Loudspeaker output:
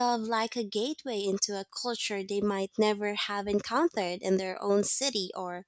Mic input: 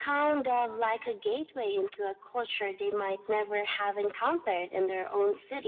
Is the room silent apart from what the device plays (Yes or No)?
Yes